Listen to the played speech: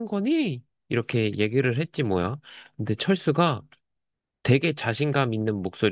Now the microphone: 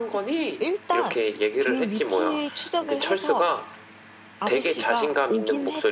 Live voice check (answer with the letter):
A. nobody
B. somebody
B